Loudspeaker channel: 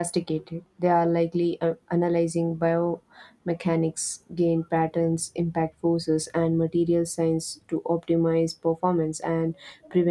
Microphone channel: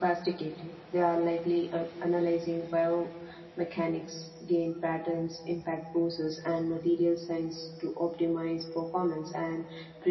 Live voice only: none

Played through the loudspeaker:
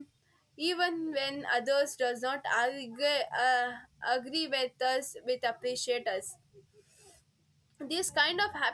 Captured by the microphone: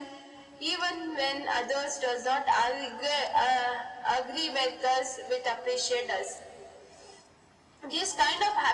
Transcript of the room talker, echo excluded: none

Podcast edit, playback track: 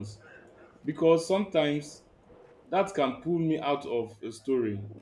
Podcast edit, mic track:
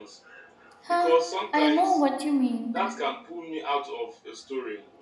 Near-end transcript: Huh, I know what you mean,

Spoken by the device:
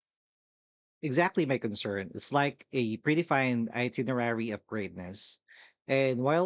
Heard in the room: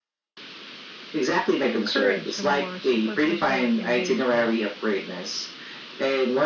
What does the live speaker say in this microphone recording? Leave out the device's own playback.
encourage a more superficial engagement.

